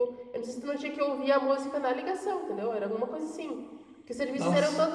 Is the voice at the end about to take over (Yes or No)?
No